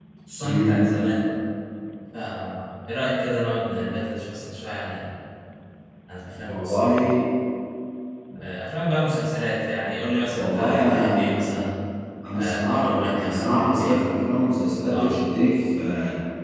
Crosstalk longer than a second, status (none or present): present